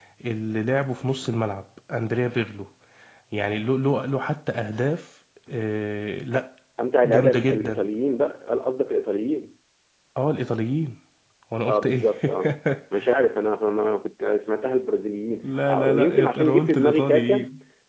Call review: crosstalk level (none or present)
present